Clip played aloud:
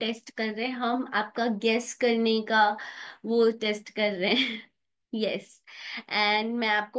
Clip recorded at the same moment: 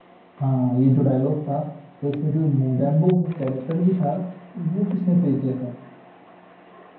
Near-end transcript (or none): हाँ ये जो डायलॉग था तो इसमें जो मोगेम्बो जो कैरेक्टर भी था वो किसने प्ले किया था